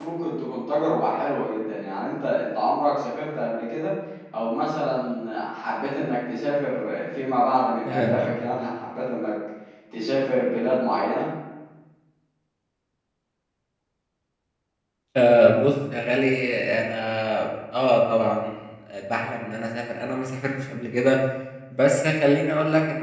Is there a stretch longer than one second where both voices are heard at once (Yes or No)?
No